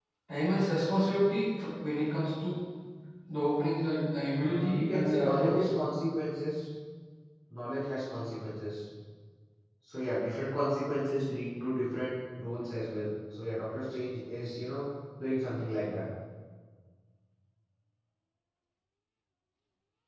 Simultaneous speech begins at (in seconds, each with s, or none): 4.4 s